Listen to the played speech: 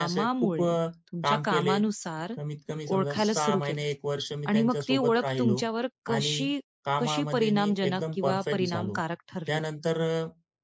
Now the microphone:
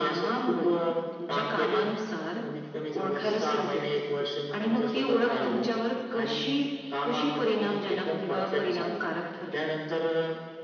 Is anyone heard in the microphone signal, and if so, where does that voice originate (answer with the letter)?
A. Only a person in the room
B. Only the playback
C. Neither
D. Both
D